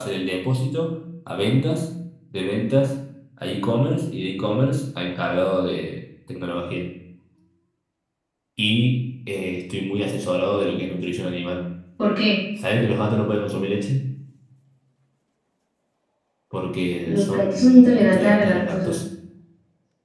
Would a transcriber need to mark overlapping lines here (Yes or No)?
Yes